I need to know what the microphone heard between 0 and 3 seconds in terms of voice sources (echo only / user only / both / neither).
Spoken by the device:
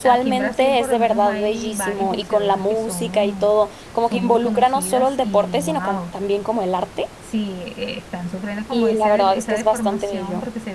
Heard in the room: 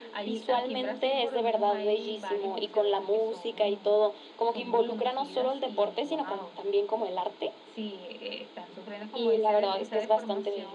echo only